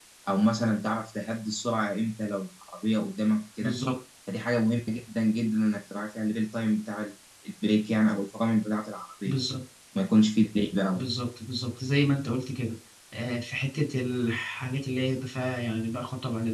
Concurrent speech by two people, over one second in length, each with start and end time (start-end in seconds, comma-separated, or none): none